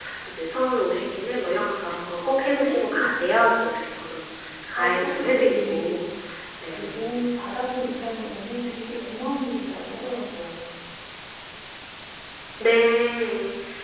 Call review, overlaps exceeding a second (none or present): present